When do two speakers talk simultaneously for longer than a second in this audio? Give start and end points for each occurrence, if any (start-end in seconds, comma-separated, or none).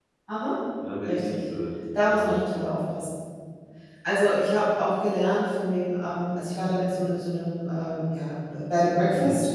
none